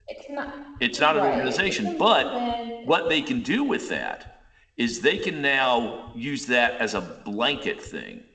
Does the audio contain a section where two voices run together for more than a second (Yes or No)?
Yes